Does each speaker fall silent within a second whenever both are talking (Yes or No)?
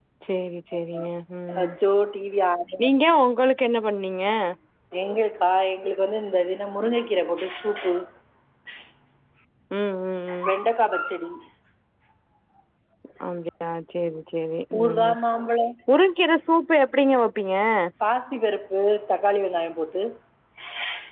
Yes